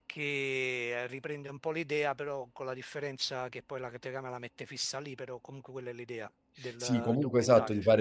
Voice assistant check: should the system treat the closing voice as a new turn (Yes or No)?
Yes